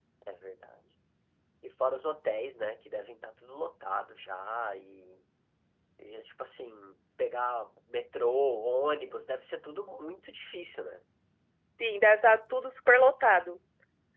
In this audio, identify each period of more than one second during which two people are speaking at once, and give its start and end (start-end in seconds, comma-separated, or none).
none